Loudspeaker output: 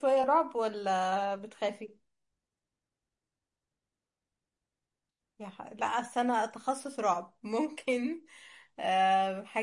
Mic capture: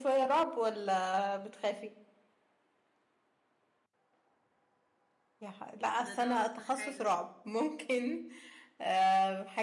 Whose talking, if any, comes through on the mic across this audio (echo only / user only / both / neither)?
both